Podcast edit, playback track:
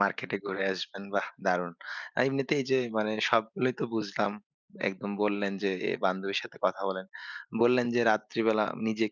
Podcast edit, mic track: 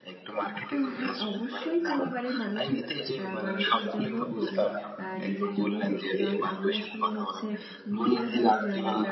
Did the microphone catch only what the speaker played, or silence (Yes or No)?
No